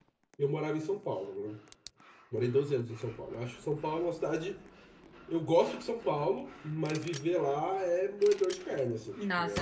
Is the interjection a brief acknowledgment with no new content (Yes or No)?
No